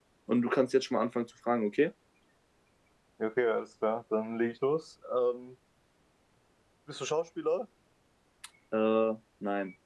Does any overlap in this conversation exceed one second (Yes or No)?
No